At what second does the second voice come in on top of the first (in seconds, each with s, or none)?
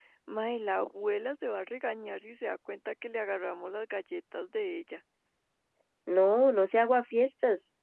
none